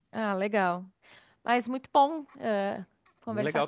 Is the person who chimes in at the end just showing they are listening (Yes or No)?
No